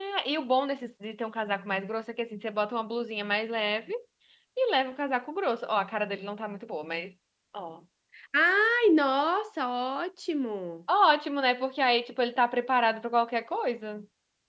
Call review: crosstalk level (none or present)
none